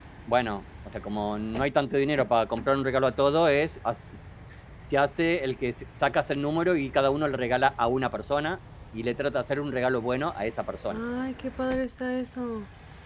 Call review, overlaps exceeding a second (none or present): none